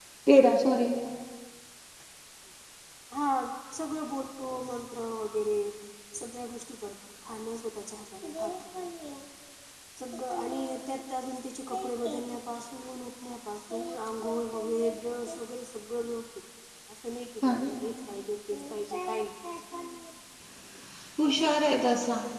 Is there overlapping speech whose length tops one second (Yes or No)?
No